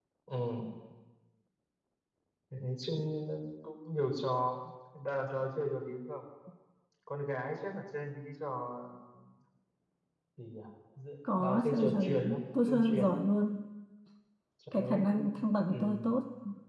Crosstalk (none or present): present